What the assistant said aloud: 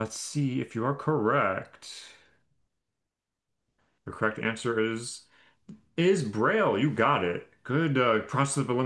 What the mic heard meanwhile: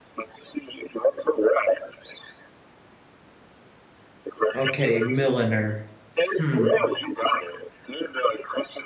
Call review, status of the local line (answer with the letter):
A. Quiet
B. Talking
B